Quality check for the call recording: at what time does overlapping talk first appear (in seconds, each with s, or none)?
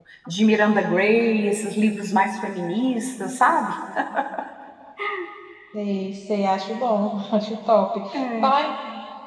none